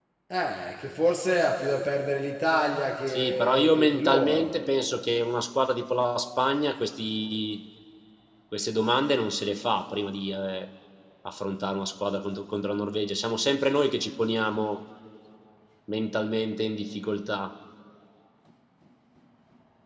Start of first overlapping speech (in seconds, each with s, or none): 3.1 s